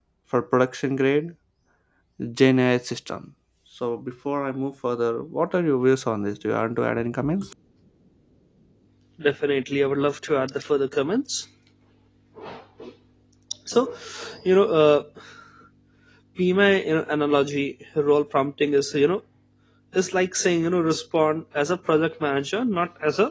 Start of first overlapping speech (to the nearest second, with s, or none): none